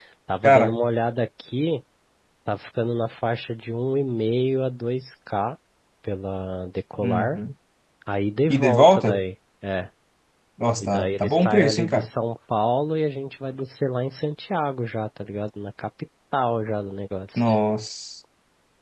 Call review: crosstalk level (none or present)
present